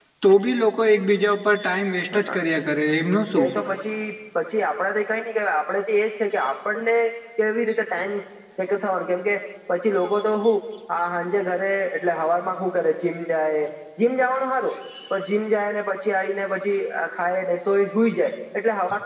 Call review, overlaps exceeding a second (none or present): none